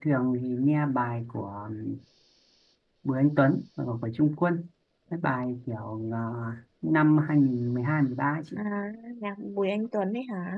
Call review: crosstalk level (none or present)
none